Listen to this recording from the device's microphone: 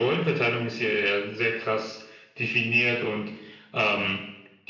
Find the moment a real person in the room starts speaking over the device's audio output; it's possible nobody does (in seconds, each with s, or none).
none